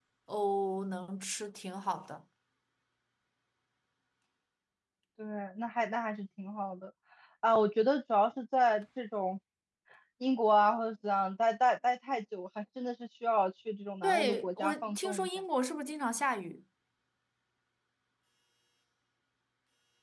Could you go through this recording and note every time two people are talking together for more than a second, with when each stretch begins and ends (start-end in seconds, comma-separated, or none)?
14.0-15.3